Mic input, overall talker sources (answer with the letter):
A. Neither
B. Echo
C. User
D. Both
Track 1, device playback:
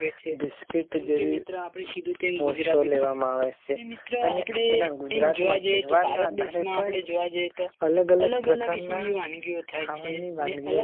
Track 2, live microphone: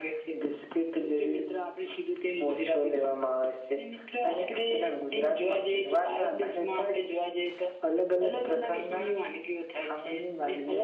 B